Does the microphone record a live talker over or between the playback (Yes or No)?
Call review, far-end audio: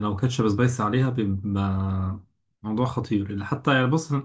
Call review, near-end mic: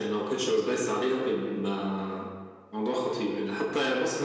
No